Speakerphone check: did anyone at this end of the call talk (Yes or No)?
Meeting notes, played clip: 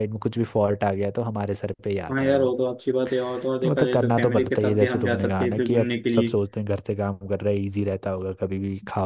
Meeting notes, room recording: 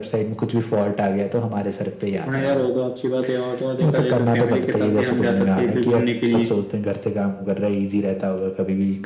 No